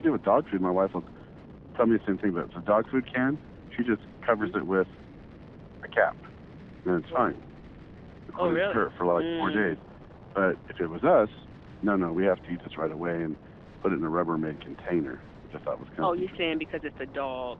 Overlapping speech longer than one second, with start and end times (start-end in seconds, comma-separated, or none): 8.4-9.8